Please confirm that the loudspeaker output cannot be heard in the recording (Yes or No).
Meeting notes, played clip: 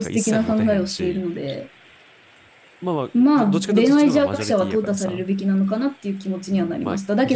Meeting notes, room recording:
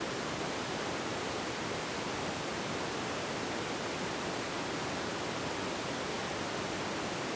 Yes